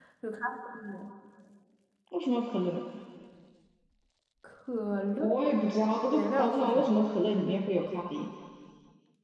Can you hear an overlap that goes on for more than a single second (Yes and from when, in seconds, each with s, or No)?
Yes, from 5.1 s